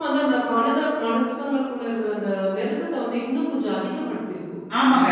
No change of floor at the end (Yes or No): No